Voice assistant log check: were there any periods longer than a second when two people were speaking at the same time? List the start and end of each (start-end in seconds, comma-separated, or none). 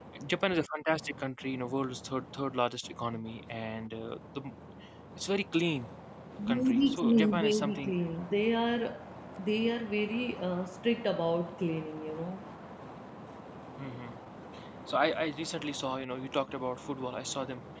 6.5-7.9